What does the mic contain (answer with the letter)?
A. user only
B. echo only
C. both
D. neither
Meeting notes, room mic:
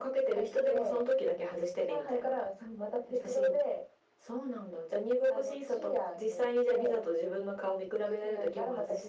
B